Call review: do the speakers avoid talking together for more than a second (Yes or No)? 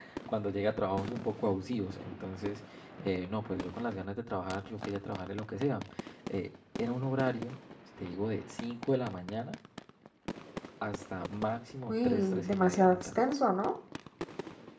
No